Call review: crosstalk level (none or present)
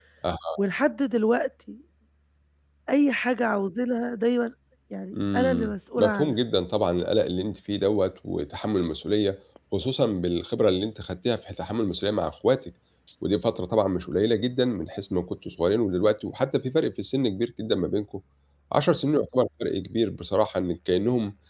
present